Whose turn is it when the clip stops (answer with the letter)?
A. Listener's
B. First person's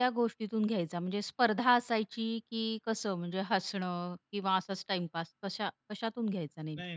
A